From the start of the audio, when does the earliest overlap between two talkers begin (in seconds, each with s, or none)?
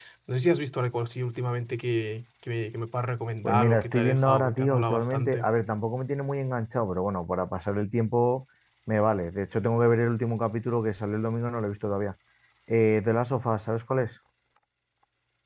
3.4 s